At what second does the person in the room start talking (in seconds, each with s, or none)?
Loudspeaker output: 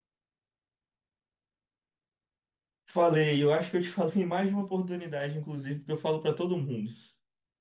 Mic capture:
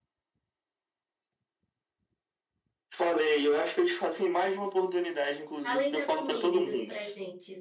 5.6 s